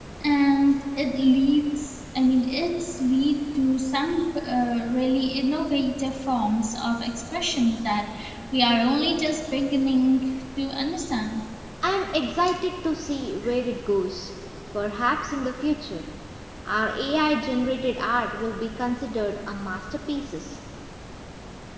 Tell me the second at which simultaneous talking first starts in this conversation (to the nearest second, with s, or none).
none